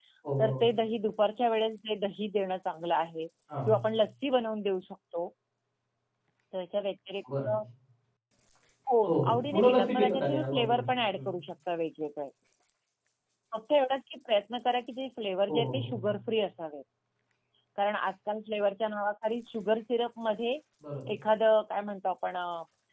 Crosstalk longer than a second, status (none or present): present